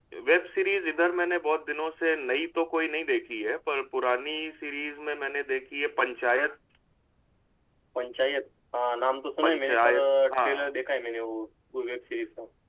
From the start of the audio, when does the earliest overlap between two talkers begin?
9.4 s

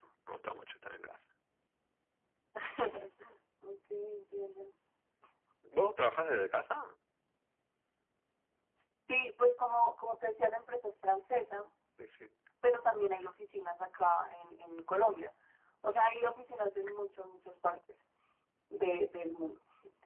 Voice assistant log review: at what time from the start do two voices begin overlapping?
none

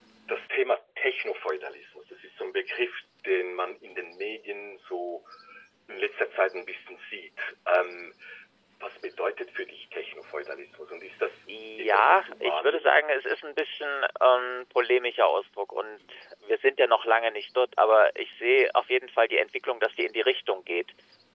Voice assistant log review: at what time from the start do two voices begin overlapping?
11.8 s

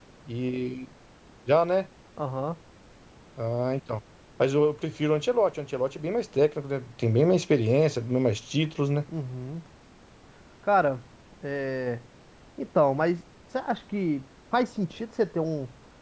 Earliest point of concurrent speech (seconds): none

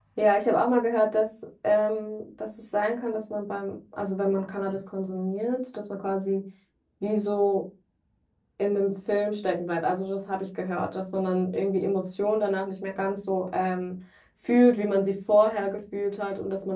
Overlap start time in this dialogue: none

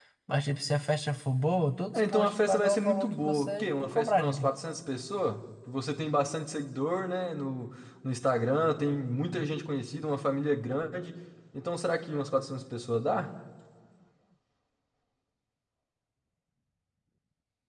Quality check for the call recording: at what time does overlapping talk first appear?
1.9 s

